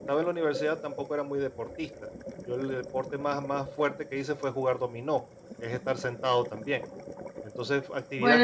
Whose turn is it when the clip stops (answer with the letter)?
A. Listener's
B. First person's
B